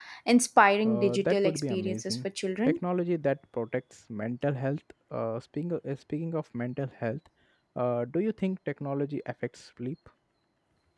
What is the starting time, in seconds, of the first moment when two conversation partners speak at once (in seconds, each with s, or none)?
0.8 s